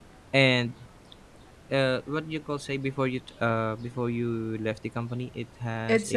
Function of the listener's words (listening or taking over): taking over